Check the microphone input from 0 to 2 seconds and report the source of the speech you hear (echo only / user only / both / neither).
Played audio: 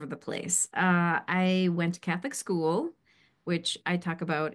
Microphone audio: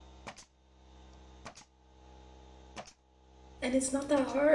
neither